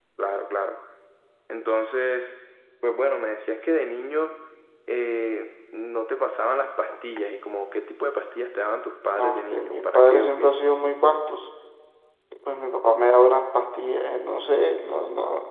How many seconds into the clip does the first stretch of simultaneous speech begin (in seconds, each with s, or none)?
9.2 s